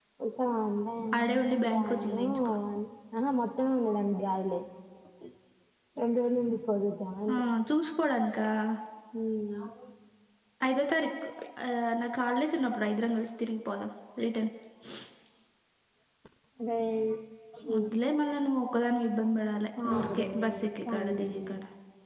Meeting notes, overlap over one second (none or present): present